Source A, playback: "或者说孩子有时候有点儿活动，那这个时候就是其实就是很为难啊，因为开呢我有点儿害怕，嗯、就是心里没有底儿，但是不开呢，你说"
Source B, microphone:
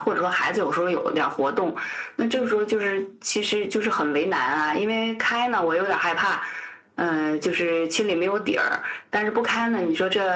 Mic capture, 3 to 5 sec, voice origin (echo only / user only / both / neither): echo only